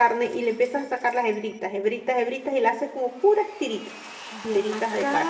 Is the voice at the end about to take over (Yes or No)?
Yes